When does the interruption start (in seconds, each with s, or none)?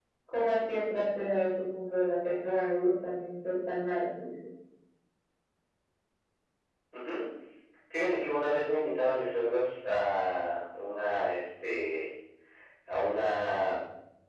none